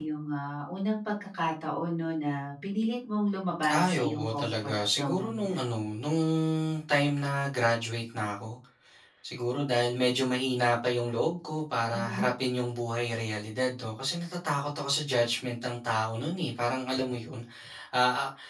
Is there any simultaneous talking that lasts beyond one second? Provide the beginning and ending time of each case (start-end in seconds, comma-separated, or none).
3.8-5.4